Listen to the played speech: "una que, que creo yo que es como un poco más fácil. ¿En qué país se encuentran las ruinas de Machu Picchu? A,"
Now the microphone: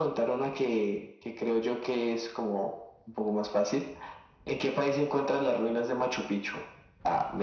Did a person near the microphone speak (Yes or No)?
No